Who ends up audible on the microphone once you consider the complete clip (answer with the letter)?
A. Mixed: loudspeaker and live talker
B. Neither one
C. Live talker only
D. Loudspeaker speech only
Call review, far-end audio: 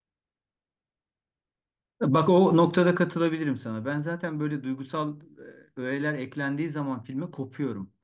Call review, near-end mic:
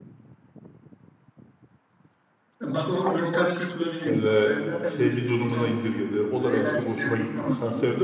A